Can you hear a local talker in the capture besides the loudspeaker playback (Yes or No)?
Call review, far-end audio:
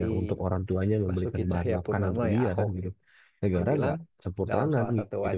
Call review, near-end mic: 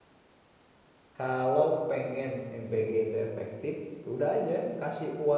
Yes